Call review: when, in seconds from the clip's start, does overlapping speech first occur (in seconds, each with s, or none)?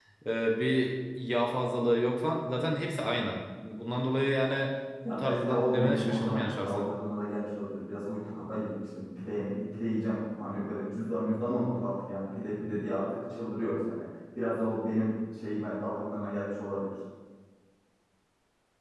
5.0 s